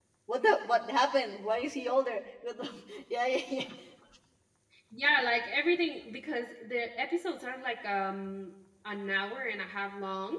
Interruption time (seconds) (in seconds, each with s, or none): none